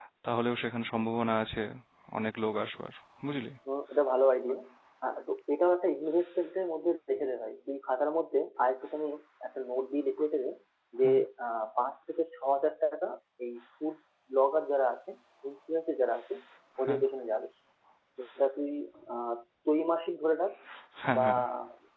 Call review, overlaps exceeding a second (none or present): none